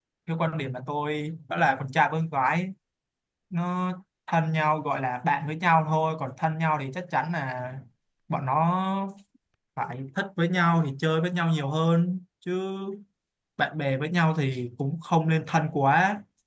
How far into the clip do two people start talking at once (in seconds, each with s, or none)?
none